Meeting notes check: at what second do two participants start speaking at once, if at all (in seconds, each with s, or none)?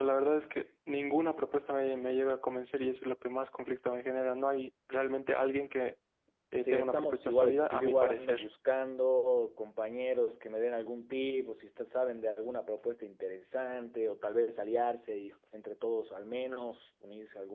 6.6 s